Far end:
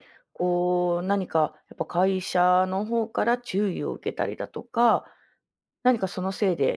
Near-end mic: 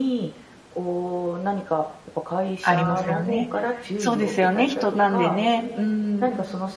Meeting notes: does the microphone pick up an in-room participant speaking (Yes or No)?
Yes